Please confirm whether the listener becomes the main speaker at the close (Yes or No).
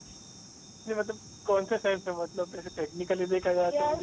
Yes